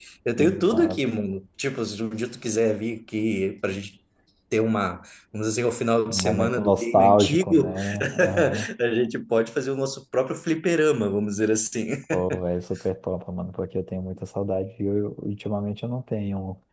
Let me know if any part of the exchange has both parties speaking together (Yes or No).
Yes